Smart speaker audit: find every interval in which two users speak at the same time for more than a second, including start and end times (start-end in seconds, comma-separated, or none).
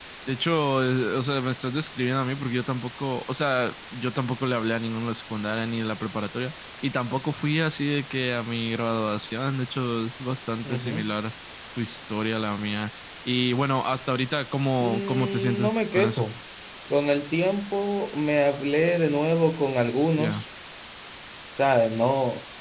14.8-16.2